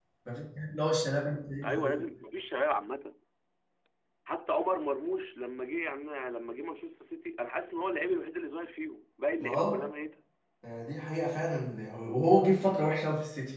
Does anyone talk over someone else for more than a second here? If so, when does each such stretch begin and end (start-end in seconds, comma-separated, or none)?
none